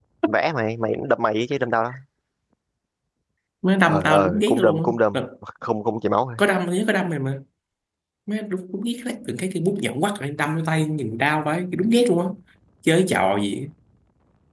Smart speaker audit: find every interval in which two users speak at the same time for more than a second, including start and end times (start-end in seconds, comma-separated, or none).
3.8-5.2